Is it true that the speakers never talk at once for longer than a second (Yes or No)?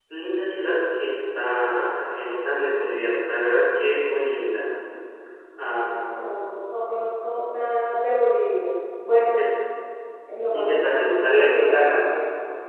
No